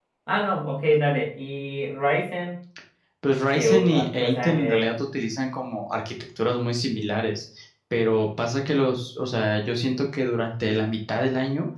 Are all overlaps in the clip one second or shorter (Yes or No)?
No